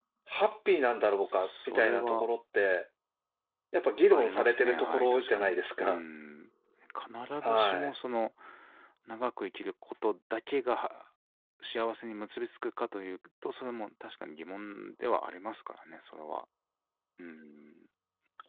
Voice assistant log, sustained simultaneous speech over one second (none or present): present